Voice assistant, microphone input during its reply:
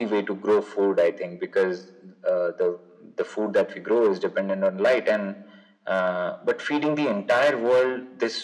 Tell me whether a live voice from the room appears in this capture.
No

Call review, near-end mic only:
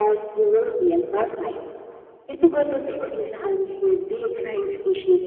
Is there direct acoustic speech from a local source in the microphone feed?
Yes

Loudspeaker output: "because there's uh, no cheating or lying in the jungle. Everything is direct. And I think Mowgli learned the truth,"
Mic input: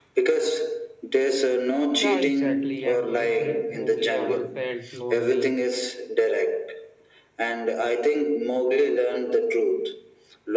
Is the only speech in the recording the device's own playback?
No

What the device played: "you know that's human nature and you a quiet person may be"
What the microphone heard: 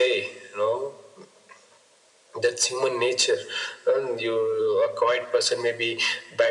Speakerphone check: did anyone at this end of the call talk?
No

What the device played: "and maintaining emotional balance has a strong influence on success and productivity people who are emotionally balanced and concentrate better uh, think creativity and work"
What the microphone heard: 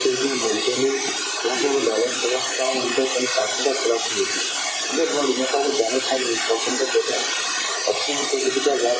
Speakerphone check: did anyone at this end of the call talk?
No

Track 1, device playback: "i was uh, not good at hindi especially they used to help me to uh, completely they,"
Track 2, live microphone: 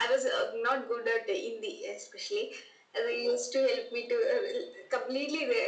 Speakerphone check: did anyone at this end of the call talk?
No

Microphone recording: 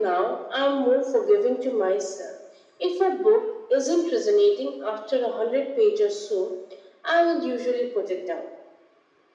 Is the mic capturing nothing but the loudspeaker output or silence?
Yes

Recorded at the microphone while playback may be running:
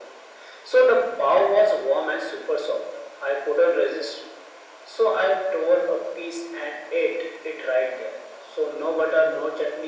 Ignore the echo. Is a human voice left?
No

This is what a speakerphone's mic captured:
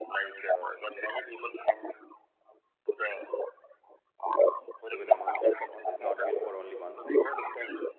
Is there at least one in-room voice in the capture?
Yes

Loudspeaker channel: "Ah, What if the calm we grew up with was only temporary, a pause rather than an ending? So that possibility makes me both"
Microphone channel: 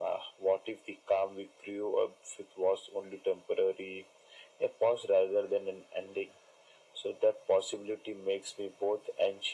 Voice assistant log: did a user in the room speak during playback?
No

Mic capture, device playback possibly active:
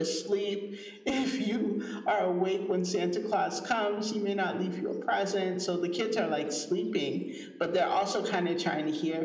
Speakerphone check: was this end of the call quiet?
Yes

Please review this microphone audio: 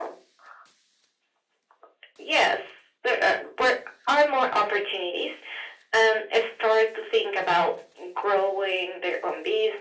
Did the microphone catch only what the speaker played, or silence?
Yes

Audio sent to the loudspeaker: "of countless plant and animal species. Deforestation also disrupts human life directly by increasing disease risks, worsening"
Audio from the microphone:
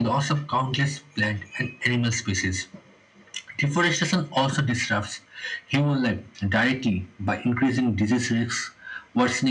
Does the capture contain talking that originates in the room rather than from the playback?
No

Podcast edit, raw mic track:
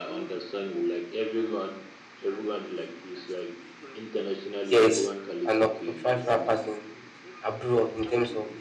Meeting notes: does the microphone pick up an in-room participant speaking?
Yes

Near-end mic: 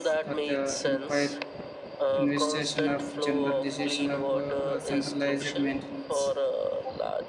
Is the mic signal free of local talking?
No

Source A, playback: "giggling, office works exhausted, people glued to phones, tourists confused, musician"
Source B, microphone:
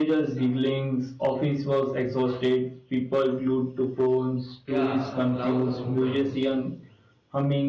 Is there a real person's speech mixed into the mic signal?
Yes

